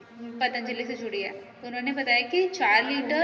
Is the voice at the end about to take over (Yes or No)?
No